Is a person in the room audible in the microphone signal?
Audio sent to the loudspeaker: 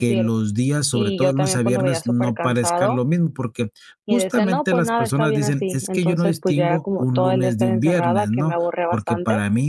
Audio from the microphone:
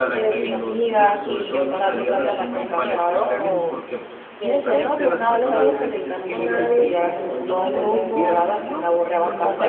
Yes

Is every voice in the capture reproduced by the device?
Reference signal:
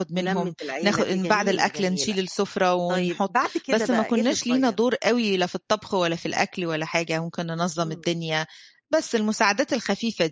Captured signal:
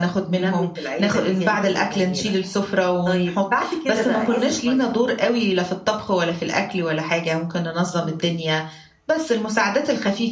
No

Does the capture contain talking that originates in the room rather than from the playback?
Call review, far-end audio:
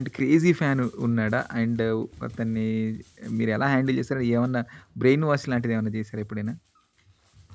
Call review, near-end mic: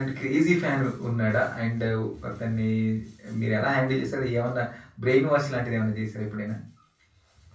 No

